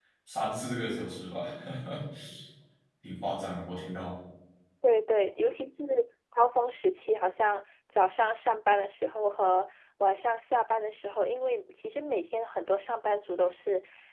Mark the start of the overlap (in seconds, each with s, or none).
none